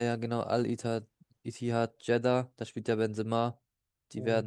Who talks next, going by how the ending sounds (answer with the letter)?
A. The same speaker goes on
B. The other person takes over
A